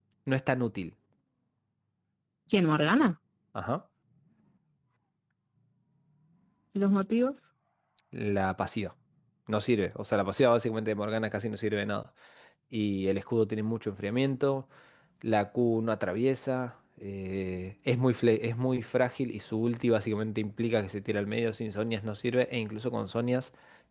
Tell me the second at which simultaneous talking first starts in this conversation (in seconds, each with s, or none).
none